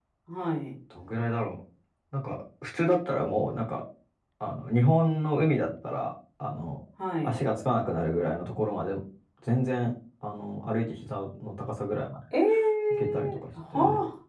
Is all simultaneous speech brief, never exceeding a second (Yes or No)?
Yes